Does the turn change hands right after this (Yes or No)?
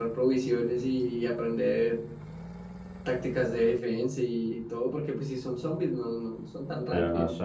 Yes